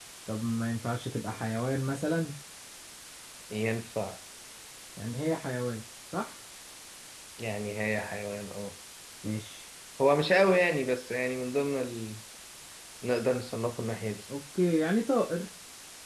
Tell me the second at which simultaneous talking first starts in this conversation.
none

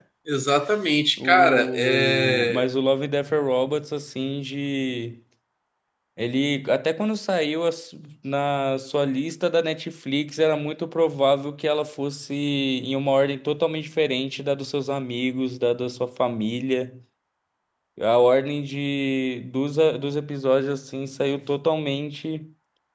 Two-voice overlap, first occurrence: 1.2 s

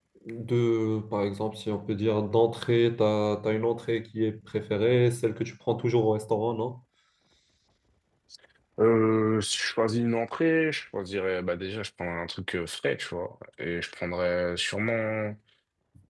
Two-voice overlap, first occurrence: none

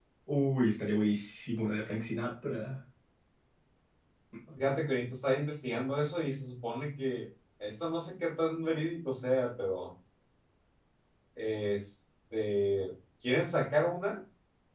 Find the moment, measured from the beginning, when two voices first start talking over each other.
none

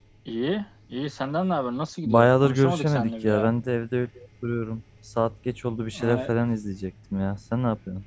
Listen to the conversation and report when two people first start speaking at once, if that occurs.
2.0 s

